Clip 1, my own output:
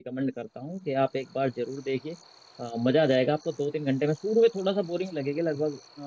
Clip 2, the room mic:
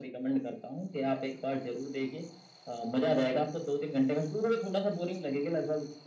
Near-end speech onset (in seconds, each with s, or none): none